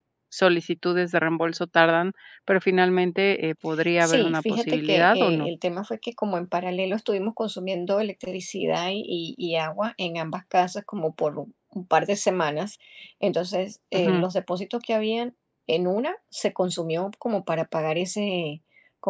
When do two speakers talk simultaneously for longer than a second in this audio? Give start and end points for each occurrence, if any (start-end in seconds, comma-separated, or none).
4.0-5.5